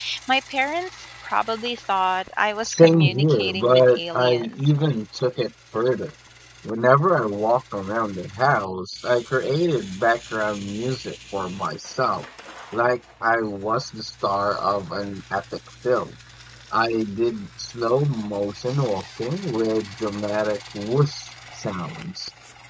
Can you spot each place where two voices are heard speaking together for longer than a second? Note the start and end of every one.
2.6-4.7

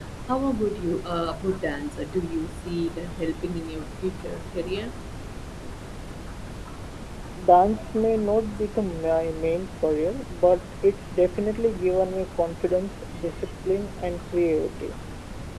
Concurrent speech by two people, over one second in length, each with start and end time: none

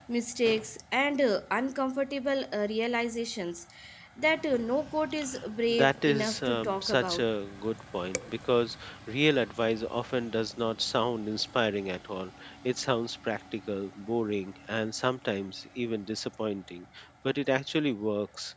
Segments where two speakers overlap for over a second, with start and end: 5.8-7.2

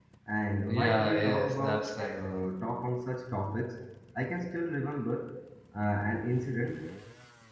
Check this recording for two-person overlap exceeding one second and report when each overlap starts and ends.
0.7-2.2

